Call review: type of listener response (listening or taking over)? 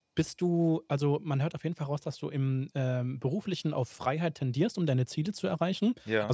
listening